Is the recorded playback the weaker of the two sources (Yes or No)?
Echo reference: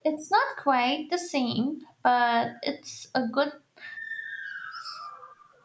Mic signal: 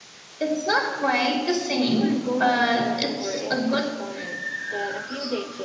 No